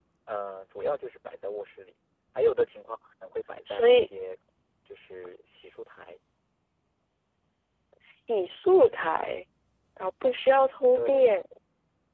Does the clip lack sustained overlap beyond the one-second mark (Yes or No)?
Yes